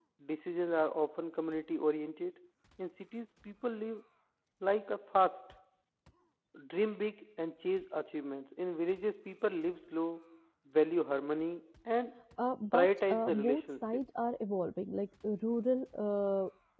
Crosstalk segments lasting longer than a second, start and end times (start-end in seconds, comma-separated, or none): 12.7-14.0